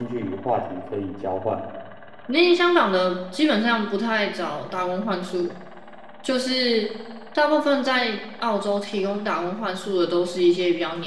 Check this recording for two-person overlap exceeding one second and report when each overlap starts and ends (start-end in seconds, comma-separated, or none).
none